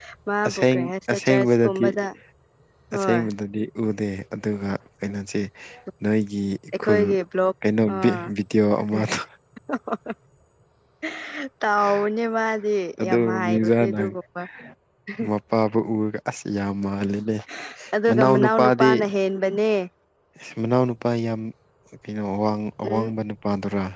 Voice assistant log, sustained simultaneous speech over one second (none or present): present